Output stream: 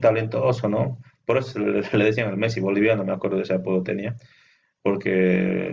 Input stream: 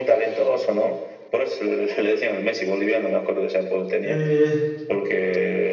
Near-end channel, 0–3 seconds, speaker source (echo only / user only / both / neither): echo only